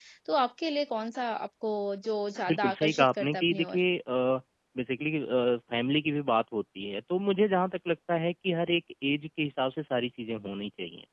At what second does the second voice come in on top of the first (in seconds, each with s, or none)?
2.5 s